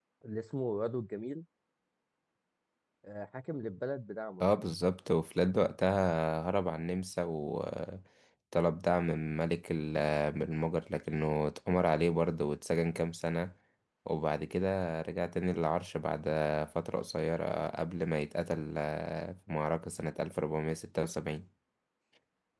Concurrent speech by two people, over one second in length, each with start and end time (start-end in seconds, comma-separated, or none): none